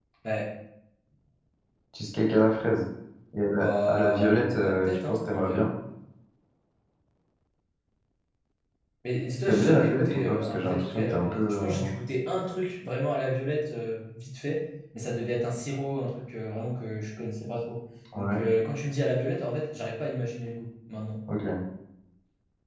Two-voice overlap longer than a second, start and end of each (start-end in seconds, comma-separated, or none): 3.5-5.6, 9.5-11.9